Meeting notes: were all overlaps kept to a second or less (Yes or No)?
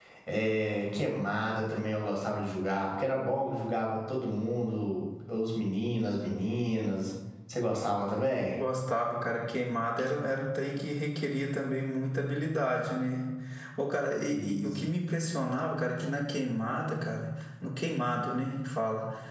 Yes